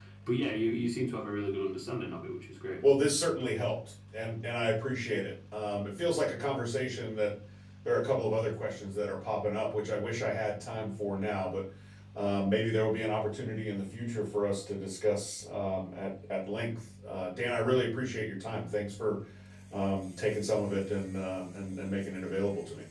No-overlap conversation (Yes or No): Yes